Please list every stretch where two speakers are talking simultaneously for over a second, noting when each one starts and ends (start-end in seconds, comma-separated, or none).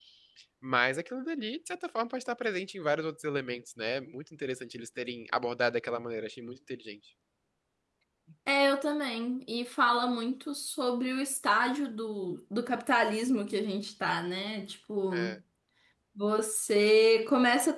none